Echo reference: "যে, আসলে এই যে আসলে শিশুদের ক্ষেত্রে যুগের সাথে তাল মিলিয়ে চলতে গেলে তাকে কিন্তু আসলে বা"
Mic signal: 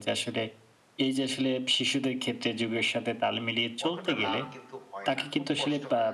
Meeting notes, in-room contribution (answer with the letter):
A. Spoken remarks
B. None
A